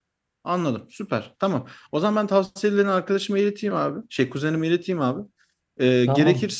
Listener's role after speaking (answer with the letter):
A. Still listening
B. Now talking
A